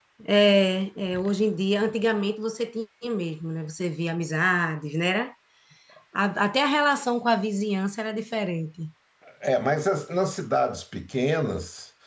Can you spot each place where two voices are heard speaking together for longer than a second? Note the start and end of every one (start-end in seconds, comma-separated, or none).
none